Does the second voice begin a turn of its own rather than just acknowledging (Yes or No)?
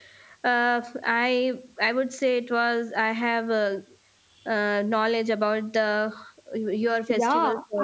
Yes